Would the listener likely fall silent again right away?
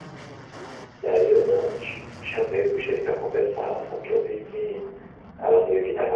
Yes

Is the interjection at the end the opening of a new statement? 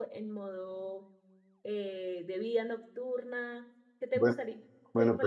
Yes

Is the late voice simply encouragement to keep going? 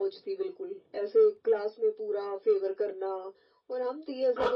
No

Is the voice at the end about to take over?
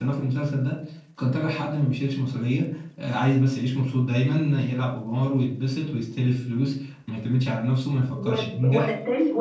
Yes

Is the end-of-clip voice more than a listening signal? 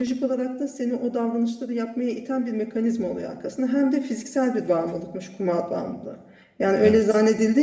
No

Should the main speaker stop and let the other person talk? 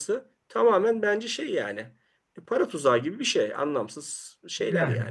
Yes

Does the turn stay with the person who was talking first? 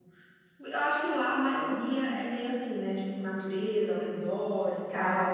No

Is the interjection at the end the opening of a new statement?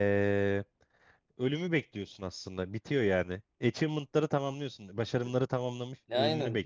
Yes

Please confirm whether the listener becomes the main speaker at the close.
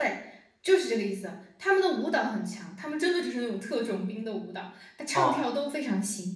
No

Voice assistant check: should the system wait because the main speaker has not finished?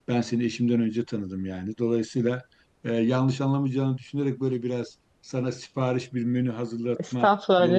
No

